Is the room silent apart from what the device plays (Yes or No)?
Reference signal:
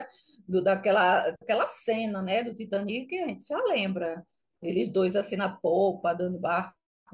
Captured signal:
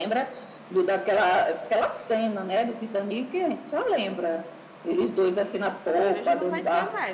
No